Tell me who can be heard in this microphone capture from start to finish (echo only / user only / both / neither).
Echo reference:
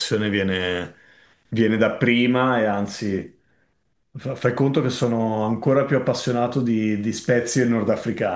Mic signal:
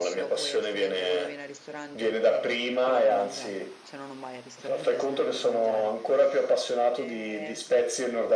both